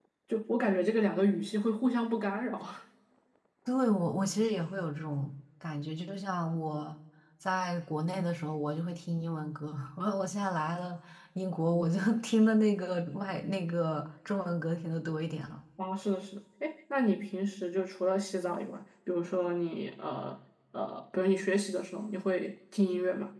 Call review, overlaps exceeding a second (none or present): none